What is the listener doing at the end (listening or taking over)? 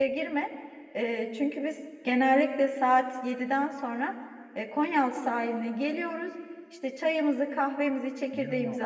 listening